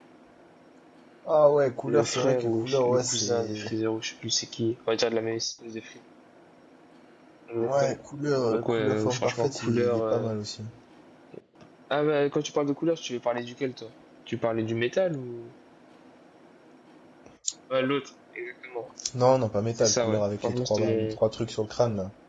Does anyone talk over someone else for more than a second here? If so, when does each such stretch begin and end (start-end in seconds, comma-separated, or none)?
1.9-3.7, 8.5-10.3, 19.8-21.2